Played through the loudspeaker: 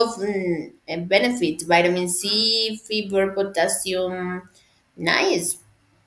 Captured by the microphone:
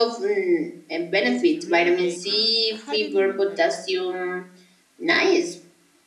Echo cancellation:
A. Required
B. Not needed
A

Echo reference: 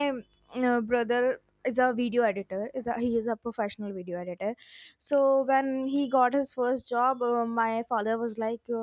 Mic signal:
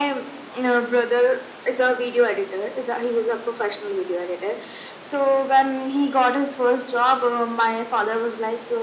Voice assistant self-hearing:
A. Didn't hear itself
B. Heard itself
B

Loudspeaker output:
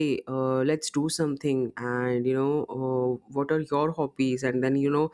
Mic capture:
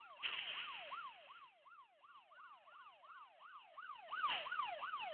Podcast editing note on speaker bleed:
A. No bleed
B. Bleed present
A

